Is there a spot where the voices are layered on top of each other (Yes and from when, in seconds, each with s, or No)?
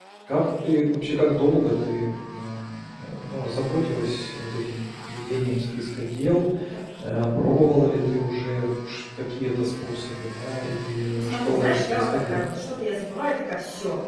Yes, from 11.2 s